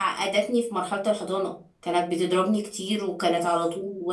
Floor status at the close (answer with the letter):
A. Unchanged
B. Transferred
A